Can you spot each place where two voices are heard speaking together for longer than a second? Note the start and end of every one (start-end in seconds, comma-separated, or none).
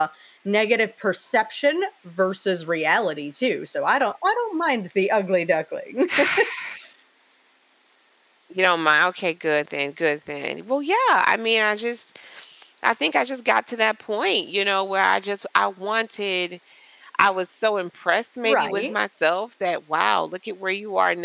none